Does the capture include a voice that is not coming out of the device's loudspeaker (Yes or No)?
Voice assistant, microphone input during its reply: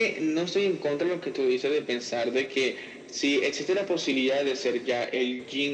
No